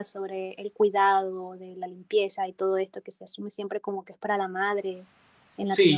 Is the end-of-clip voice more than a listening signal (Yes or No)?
Yes